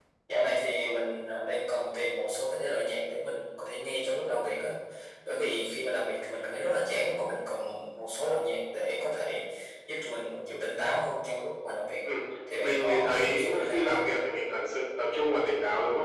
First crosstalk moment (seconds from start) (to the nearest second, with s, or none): 13 s